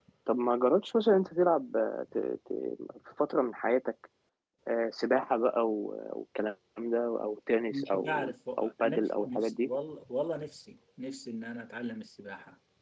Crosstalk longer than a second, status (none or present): present